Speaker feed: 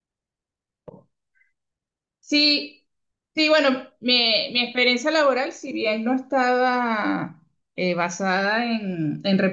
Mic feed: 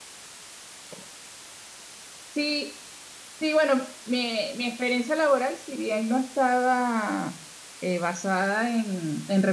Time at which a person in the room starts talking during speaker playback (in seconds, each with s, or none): none